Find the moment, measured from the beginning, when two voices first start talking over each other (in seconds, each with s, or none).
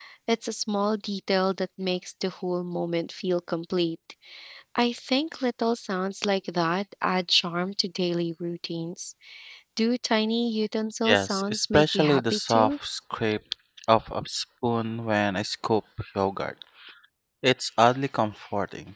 11.0 s